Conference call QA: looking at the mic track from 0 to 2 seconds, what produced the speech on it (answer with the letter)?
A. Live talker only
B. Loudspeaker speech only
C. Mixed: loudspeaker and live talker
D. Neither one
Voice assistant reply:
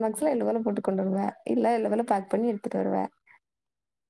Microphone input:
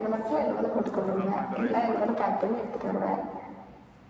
C